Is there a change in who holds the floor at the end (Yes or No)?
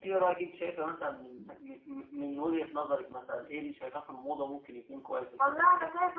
Yes